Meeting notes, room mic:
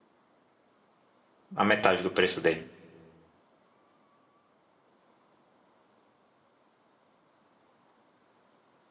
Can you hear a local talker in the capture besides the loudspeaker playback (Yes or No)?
Yes